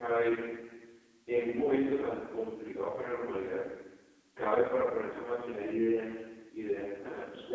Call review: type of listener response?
taking over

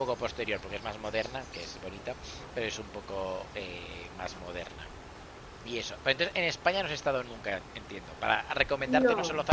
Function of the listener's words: listening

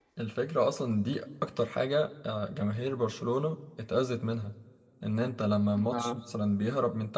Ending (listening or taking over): listening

